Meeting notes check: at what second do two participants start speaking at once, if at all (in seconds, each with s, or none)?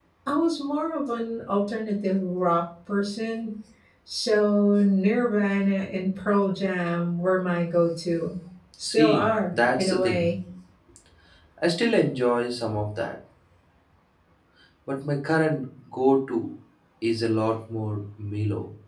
8.8 s